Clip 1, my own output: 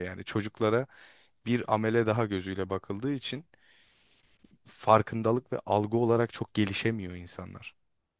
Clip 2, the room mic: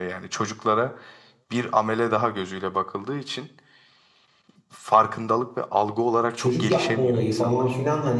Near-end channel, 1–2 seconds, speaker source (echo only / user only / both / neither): echo only